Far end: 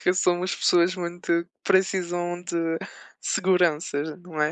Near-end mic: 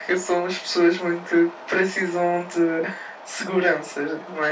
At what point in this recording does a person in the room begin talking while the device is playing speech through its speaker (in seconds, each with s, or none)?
none